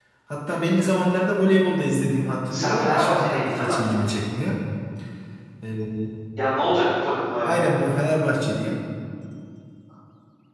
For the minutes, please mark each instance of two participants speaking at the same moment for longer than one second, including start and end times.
2.5-3.8

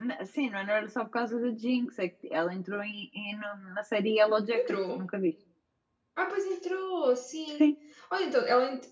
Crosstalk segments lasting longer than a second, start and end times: none

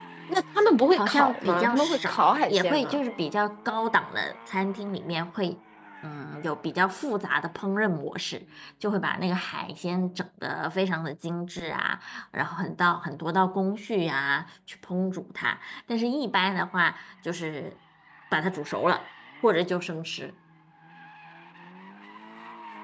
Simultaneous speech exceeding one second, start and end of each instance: 0.9-3.0

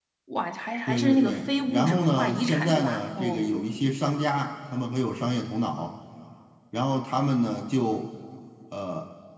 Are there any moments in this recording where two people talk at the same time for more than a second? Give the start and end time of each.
0.9-3.4

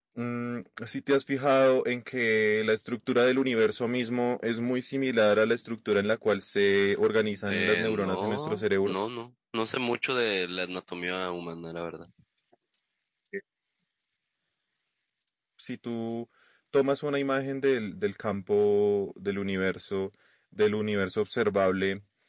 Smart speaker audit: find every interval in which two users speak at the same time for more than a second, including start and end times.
7.5-8.9

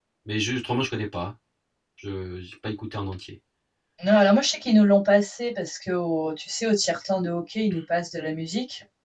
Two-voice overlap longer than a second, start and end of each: none

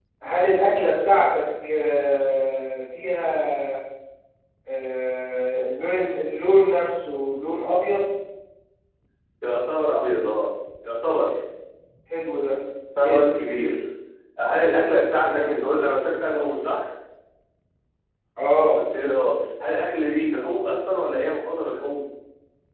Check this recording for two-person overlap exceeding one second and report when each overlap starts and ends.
none

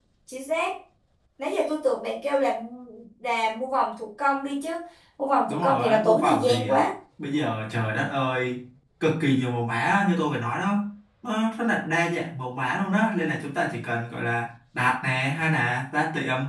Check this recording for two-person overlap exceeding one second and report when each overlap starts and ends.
5.5-6.8

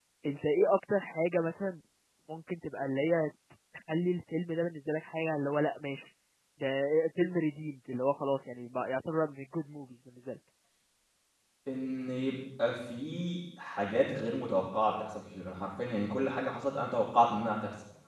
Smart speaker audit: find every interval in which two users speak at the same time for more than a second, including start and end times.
none

